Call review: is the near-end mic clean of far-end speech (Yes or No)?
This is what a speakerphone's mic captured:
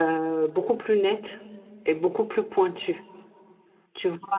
Yes